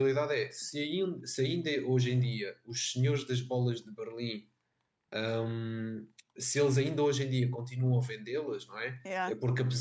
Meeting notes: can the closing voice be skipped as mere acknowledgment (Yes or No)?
Yes